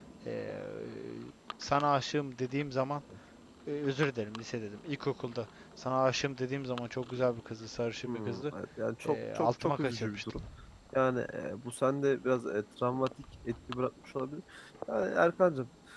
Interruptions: present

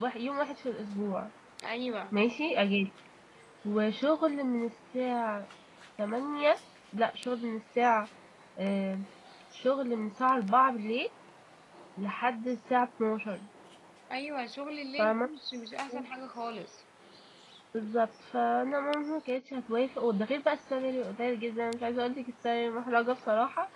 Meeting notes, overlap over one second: none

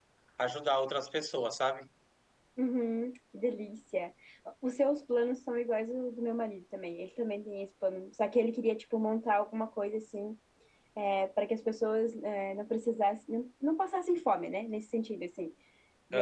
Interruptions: none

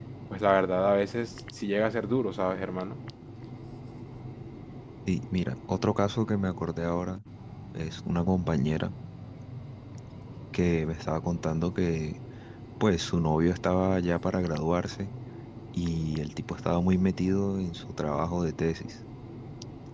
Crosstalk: none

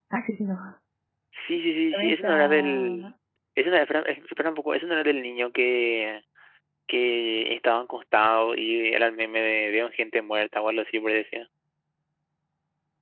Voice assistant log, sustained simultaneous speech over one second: present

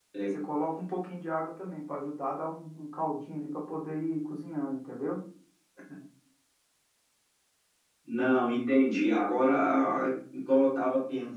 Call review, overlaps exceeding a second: none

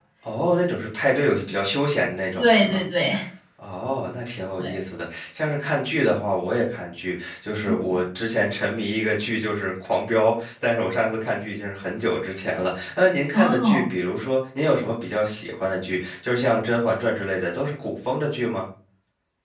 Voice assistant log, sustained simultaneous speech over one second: none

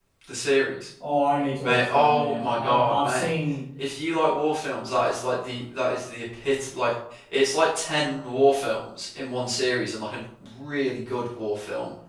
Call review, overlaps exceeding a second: present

